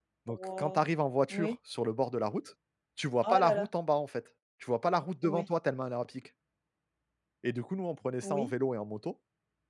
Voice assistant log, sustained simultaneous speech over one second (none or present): none